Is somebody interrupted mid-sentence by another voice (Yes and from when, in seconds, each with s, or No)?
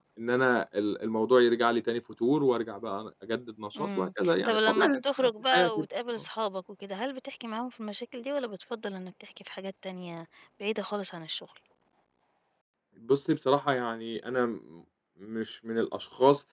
Yes, from 3.8 s